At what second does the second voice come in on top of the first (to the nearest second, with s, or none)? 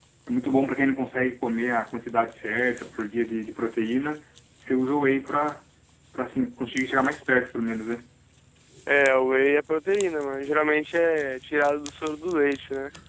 none